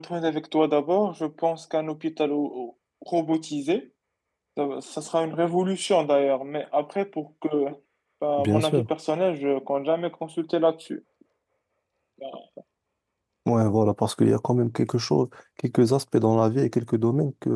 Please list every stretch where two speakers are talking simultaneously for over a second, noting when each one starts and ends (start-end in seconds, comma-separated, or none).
none